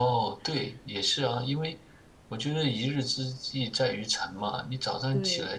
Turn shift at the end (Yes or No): No